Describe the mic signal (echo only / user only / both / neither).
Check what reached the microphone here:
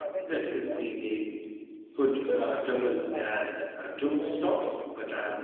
both